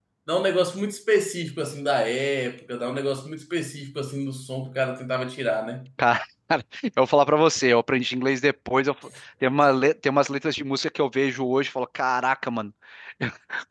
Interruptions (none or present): none